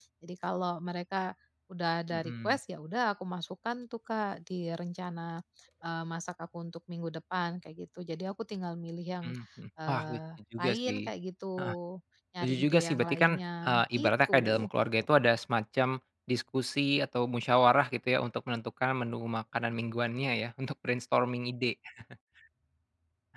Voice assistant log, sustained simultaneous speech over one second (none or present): present